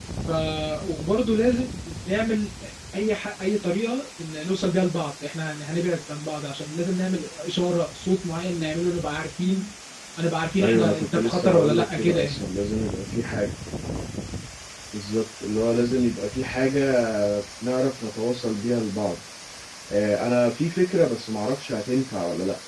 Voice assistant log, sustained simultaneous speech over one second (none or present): present